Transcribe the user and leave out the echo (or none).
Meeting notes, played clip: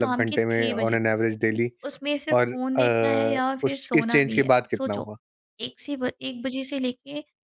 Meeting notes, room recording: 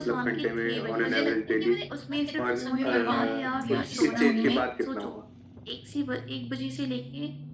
तो मुझे लगता है कि मैंने अपना कितना समय बर्बाद कर दिया इस फ़ोन में